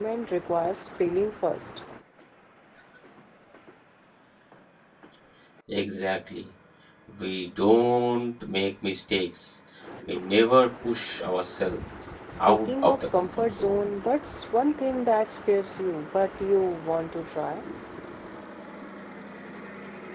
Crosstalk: present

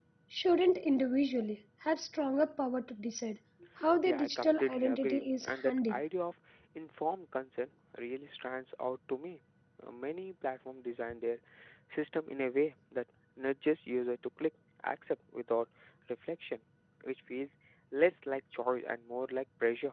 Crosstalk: present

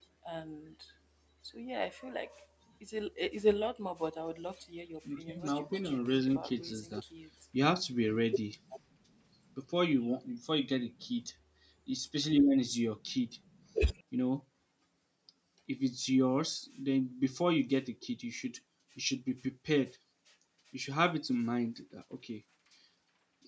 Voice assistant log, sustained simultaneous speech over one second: present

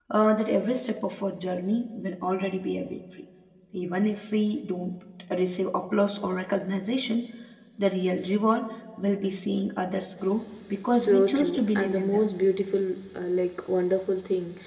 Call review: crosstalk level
present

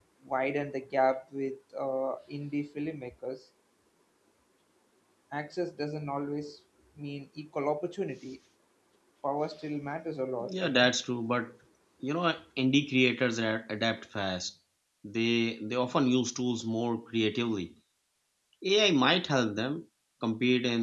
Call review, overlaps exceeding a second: none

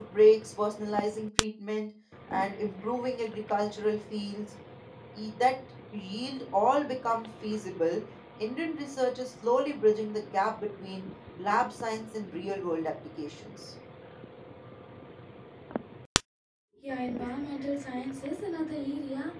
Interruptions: none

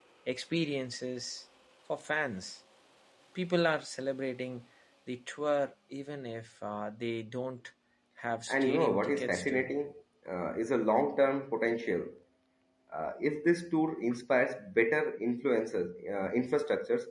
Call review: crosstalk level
present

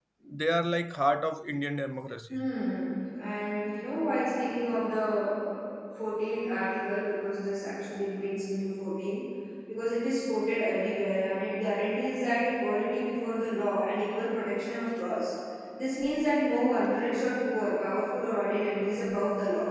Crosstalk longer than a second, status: none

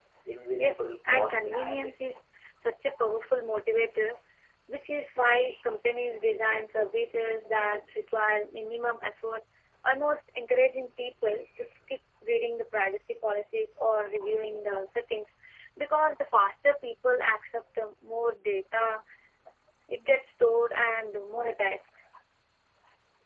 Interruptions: present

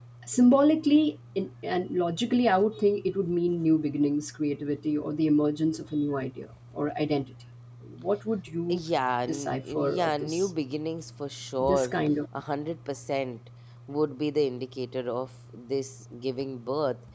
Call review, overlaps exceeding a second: present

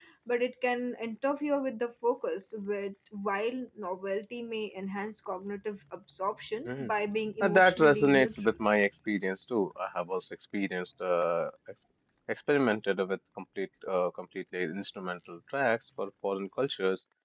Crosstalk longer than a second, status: present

